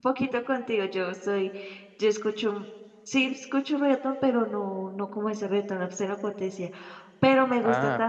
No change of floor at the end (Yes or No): Yes